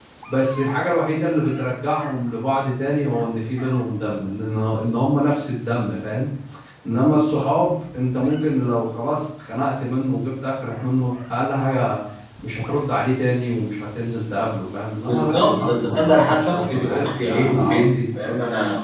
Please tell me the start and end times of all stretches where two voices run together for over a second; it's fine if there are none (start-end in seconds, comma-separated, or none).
15.1-18.3